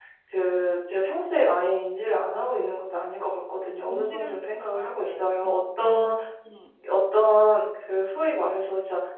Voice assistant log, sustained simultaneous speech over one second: present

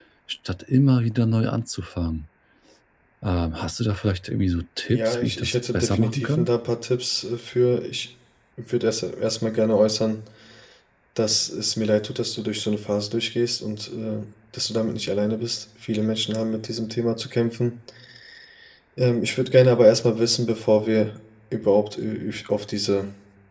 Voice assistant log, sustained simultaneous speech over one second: present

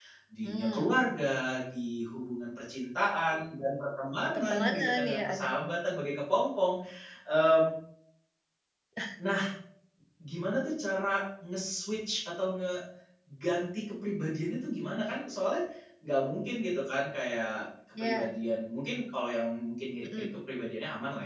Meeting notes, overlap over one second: present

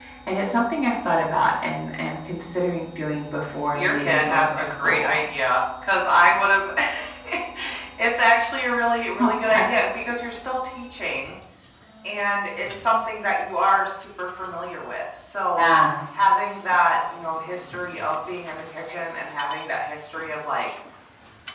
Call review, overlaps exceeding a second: present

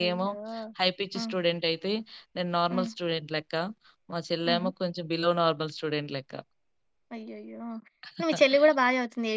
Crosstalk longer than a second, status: none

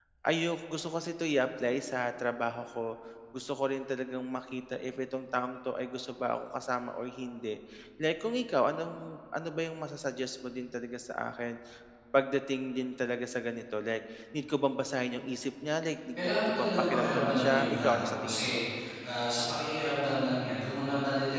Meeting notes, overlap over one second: present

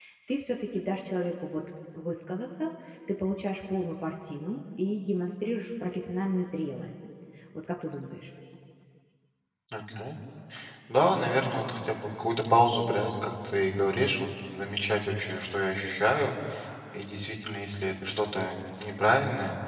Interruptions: none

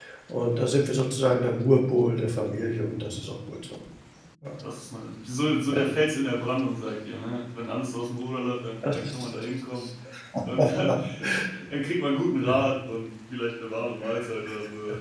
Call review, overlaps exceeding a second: none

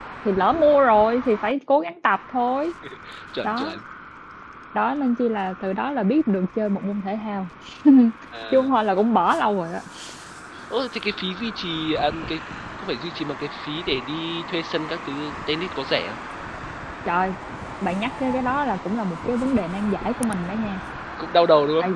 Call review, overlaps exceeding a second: none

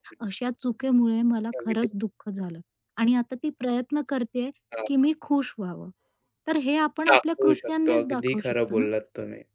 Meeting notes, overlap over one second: present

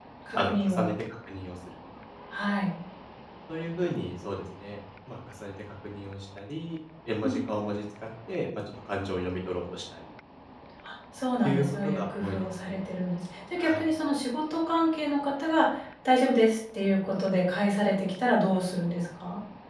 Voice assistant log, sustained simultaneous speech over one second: present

